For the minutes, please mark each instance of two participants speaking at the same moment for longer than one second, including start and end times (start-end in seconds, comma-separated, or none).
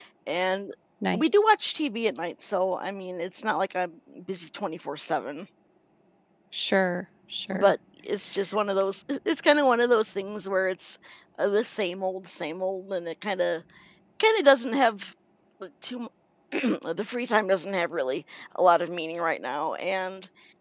none